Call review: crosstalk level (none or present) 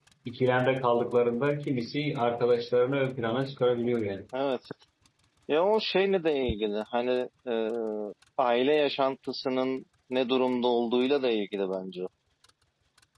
none